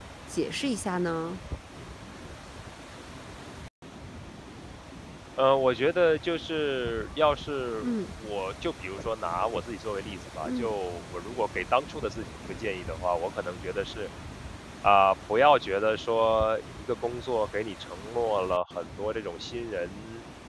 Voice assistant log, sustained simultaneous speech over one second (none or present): none